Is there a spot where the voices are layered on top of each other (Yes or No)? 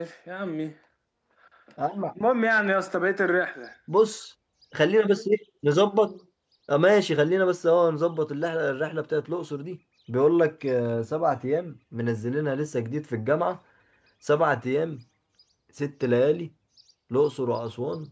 No